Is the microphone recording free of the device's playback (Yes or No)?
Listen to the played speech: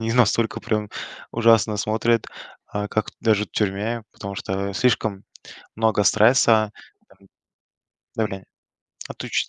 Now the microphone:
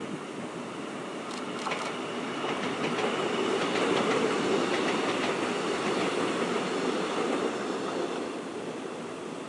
Yes